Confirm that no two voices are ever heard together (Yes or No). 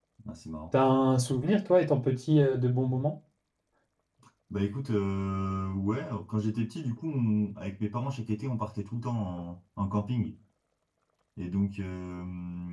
Yes